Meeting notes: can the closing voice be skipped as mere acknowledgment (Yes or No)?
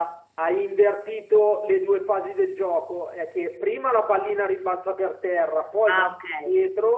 Yes